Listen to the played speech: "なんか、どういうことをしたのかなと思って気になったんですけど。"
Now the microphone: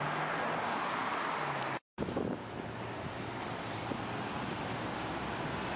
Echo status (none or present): none